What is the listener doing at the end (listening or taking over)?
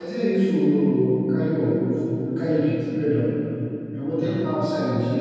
listening